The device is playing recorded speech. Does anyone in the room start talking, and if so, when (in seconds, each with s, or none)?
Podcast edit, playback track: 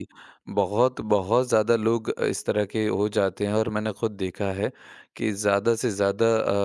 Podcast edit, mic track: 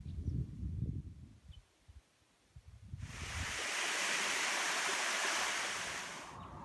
none